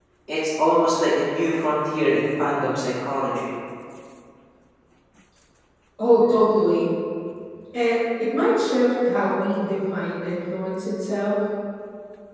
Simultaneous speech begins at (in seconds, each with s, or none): none